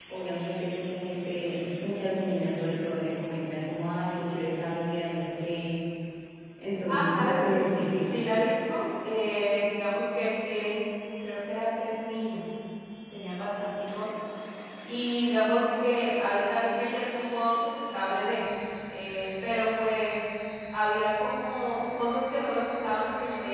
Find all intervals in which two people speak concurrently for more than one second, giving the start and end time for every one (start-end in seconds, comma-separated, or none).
6.9-8.2